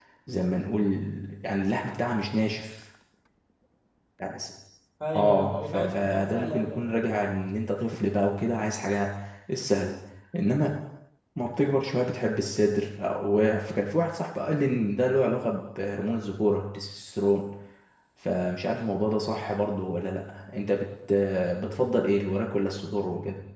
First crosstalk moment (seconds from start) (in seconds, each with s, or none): 5.2 s